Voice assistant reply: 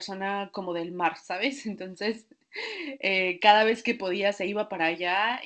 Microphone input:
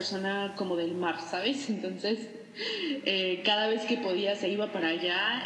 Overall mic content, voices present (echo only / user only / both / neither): echo only